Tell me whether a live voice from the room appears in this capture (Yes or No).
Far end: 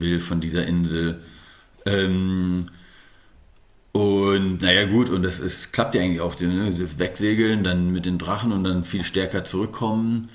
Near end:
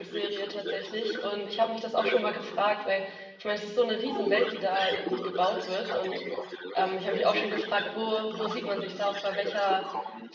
Yes